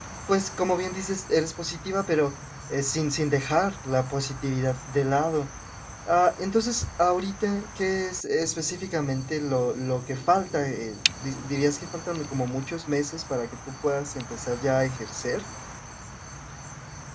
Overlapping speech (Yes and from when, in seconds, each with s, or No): No